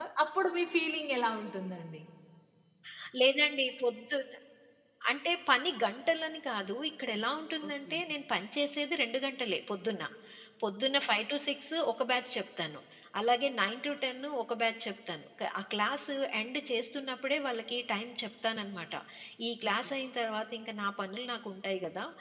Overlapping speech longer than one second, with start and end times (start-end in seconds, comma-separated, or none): none